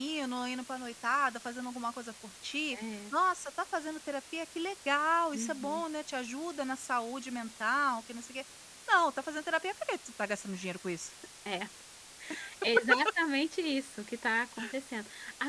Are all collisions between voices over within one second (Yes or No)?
Yes